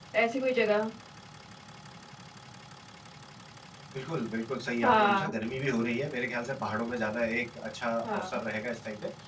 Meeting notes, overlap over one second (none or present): none